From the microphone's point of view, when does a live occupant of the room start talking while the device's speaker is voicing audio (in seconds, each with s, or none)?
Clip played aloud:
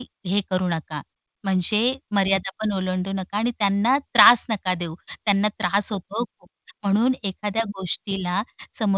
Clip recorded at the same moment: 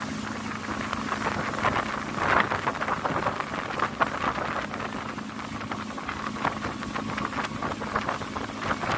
none